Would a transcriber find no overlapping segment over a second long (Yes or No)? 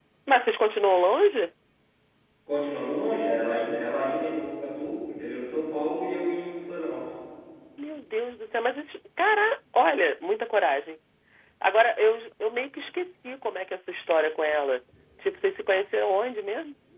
Yes